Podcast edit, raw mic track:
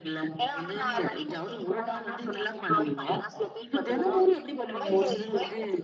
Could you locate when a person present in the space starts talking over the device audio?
none

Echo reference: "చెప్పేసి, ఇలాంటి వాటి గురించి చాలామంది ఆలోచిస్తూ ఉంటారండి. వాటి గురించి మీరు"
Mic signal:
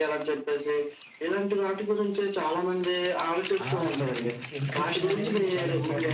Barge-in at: 4 s

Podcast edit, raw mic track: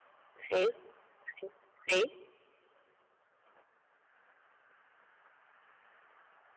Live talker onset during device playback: 0 s

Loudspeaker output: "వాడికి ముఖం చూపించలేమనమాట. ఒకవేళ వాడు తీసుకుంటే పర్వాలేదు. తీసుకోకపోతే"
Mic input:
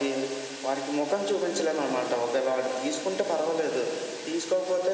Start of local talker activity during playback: none

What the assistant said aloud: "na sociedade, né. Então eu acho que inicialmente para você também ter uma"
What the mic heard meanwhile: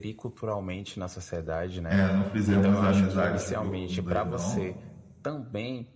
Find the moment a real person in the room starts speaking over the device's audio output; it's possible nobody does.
2 s

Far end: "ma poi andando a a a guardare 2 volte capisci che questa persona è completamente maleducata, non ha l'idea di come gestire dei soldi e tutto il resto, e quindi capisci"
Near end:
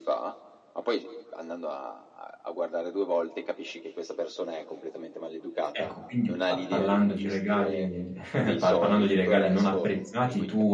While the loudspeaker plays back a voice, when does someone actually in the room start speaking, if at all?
6 s

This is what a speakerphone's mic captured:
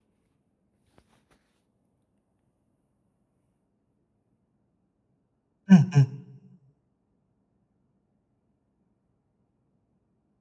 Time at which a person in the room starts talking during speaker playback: 6 s

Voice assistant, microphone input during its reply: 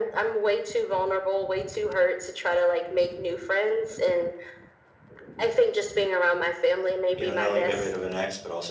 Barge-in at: 7 s

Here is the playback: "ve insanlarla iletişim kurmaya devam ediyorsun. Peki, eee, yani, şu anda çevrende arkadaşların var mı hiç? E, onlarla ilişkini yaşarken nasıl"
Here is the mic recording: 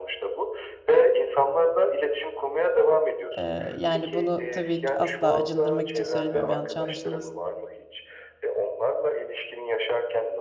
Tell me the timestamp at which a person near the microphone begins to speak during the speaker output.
3 s

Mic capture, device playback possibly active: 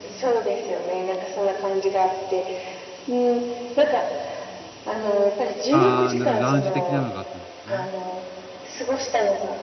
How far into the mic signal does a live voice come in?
6 s

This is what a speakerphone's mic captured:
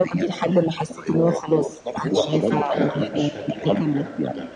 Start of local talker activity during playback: 2 s

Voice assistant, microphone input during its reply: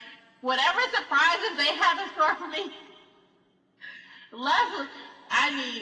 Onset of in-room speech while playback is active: none

